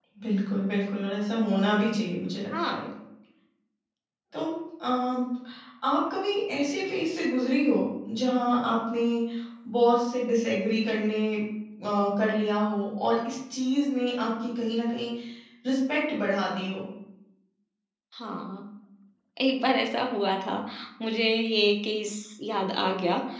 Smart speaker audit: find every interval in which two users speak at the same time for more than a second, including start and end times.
none

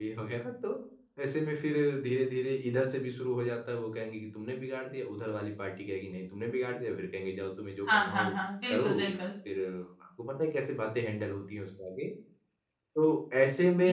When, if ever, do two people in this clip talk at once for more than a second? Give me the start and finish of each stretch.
none

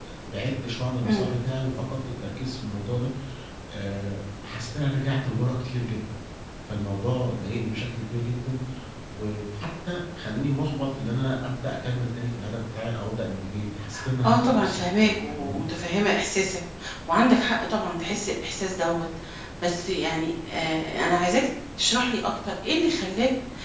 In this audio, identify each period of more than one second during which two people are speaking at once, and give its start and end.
14.2-15.6

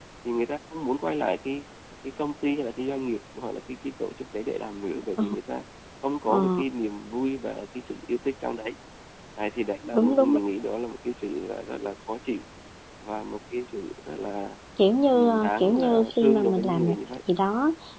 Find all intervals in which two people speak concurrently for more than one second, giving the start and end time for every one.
15.1-17.0

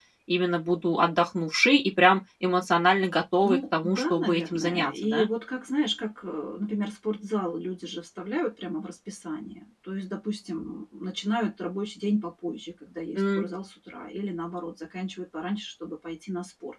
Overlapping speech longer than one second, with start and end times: 3.4-5.3

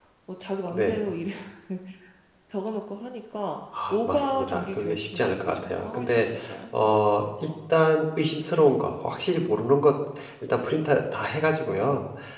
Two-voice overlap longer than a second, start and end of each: 3.9-6.3

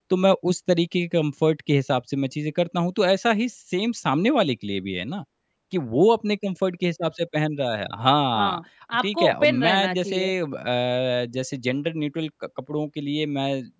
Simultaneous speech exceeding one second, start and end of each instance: 9.0-10.3

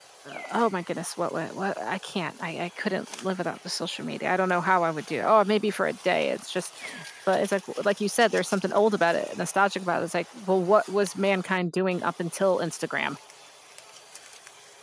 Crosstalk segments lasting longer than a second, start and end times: none

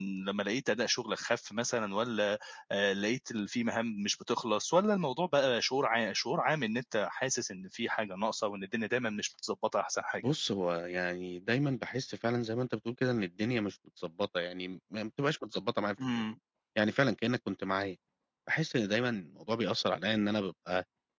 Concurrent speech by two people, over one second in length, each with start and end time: none

